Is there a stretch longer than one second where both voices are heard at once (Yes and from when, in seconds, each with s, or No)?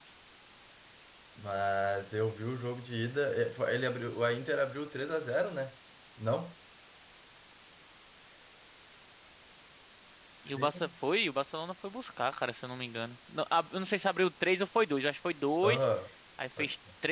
No